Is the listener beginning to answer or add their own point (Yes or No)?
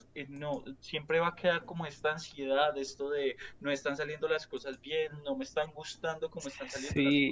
Yes